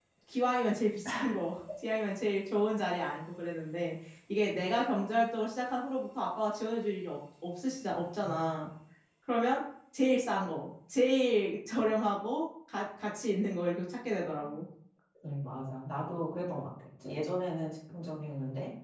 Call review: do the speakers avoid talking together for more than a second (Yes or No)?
Yes